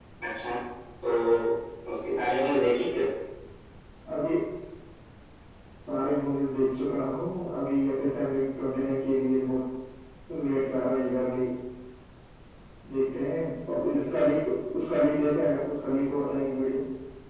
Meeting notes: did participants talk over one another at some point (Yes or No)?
No